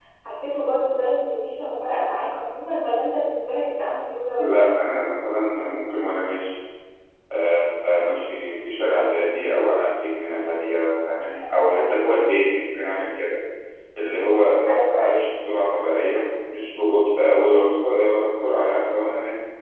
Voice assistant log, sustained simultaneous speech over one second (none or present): none